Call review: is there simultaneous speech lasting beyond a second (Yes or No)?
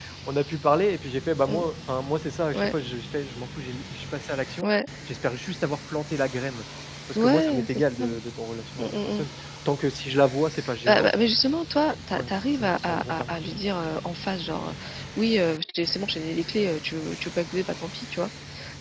Yes